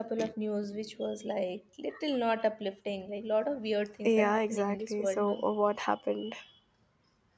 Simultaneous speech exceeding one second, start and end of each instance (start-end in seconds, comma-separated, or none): 4.0-5.4